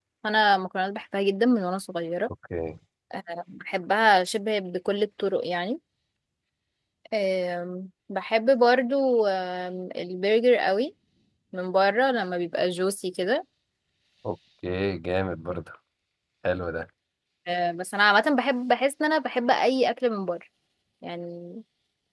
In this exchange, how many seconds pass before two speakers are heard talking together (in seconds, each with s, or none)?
none